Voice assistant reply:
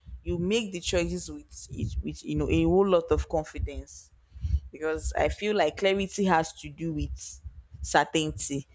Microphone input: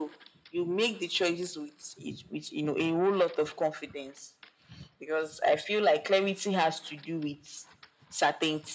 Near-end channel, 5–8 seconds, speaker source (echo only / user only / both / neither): echo only